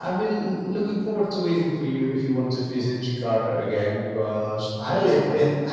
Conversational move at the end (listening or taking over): listening